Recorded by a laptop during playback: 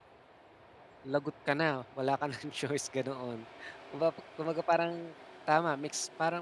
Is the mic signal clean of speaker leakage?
Yes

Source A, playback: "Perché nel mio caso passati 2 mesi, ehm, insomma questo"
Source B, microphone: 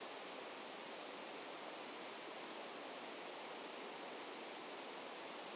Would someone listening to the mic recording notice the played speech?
No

